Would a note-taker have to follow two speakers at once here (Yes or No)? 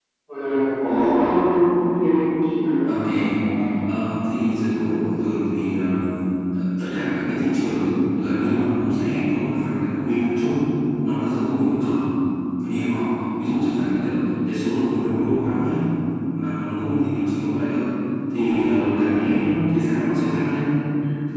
No